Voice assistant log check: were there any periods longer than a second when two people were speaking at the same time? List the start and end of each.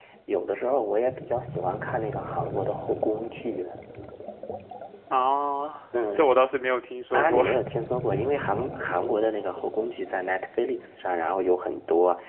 none

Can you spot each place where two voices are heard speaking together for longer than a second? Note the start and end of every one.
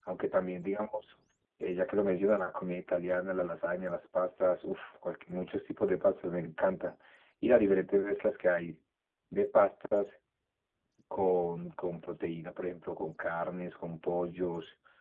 none

